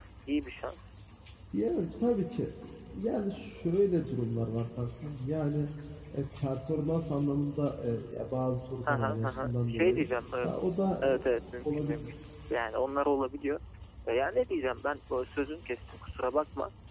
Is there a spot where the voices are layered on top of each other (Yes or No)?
Yes